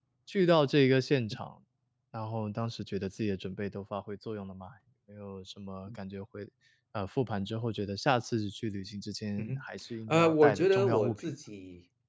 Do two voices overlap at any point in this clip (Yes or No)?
Yes